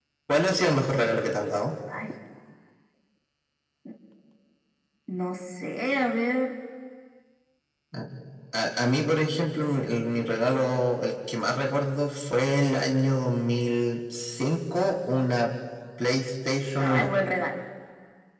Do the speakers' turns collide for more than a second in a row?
No

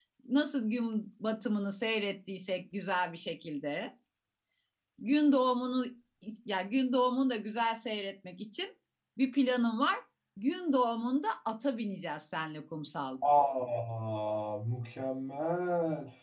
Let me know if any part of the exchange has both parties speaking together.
No

